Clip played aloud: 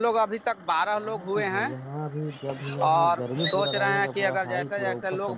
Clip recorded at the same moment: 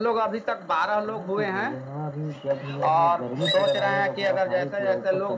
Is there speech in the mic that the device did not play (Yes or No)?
No